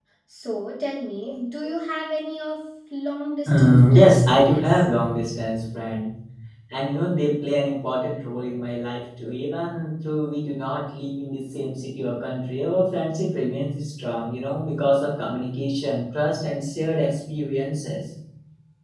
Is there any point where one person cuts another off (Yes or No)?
Yes